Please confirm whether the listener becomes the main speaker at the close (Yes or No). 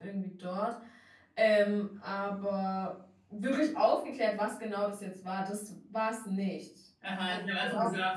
Yes